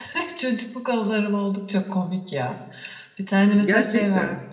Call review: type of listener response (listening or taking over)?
listening